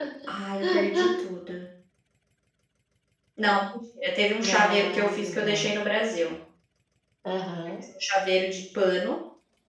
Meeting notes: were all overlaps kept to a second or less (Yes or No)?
No